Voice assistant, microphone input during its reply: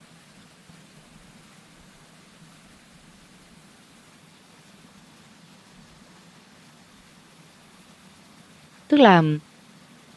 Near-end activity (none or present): present